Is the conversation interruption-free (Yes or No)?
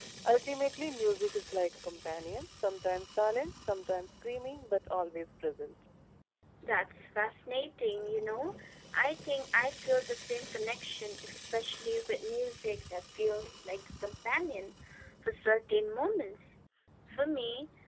Yes